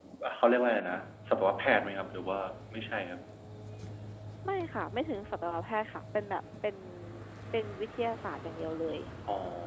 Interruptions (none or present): none